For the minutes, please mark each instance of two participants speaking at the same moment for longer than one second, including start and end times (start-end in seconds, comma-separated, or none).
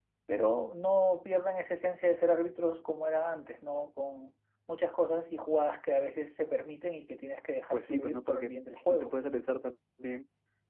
7.7-9.2